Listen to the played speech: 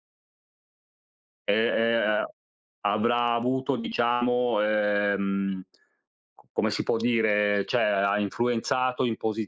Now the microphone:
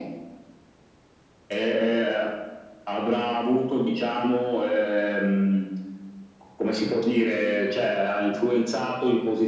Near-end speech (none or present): none